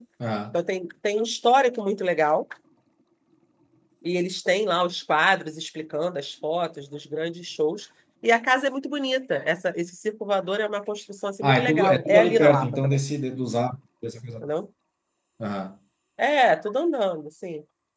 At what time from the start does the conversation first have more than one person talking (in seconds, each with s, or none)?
11.4 s